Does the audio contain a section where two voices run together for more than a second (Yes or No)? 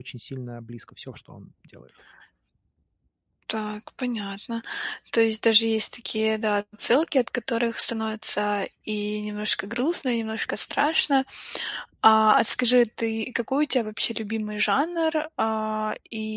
No